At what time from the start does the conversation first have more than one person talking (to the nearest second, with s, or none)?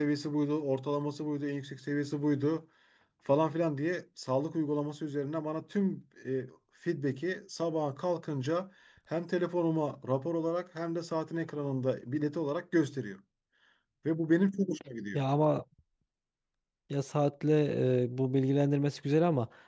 none